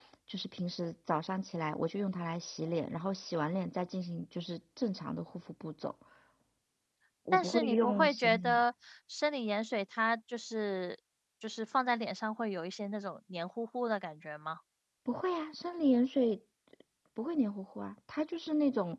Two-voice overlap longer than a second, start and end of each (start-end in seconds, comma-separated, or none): 7.3-8.6